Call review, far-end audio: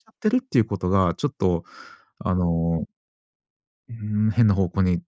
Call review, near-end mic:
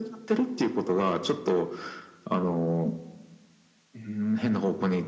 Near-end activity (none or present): none